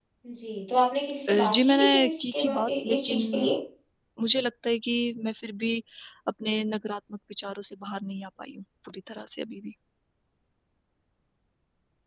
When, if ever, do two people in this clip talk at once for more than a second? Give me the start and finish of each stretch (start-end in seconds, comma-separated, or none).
1.3-3.2